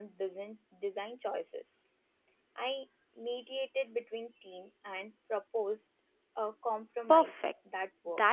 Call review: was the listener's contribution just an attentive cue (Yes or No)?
No